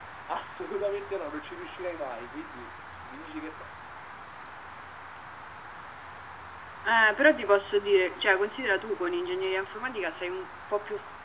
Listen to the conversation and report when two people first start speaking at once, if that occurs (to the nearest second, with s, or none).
none